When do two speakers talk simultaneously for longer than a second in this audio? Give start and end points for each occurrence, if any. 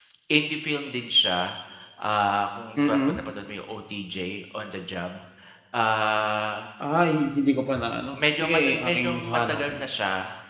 8.2-9.8

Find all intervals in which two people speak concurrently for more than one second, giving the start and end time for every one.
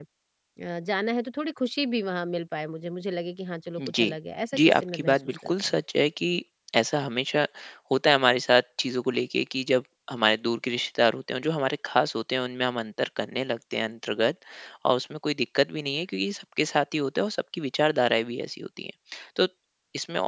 4.6-5.8

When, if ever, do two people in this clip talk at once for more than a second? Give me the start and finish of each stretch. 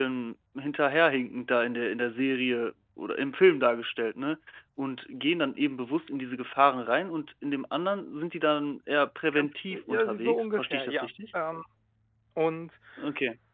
9.9-11.1

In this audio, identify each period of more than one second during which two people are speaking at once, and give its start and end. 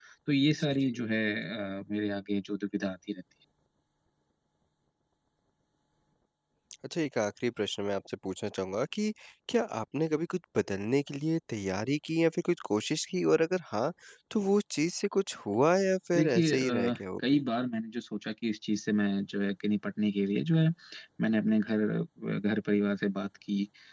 16.1-17.4

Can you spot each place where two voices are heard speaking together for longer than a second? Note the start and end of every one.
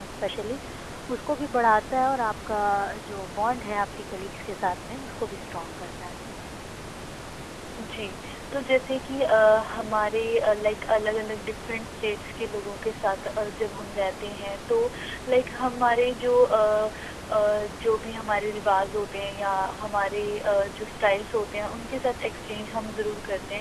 none

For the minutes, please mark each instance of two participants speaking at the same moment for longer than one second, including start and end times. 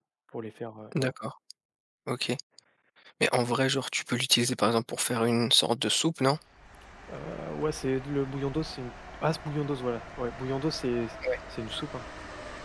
none

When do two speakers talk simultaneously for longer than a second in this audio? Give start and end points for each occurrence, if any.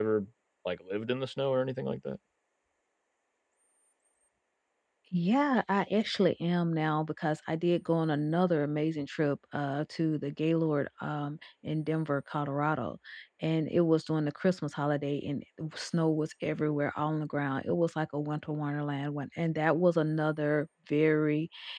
none

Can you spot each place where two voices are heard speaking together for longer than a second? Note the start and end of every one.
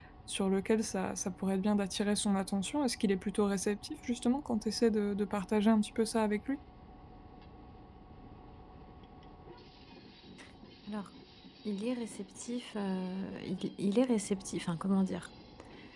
none

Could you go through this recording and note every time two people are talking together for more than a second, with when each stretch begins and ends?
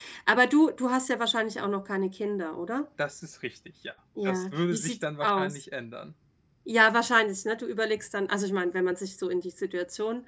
4.2-5.6

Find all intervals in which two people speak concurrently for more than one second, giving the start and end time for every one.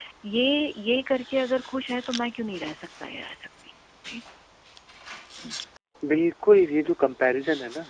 none

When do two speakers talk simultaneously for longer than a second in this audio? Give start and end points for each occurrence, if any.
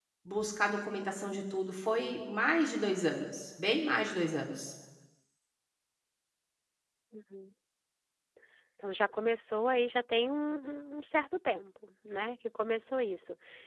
none

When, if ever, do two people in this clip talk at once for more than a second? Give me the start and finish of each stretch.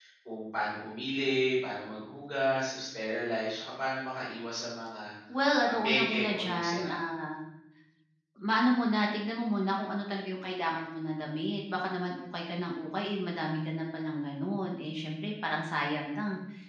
5.6-6.9

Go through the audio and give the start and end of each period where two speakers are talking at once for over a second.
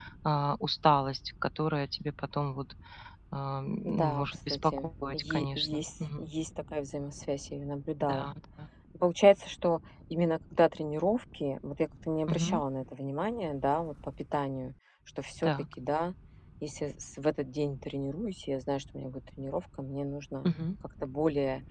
3.8-6.3

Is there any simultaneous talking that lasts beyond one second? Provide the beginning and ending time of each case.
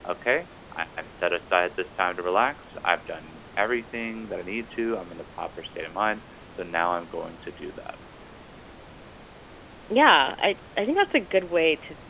none

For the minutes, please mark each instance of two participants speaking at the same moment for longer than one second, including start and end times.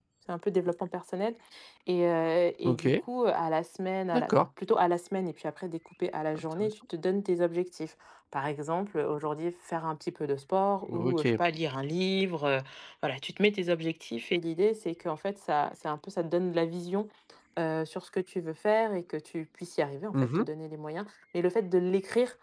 none

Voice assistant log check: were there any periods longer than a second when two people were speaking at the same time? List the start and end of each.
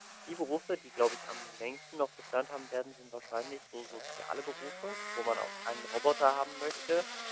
none

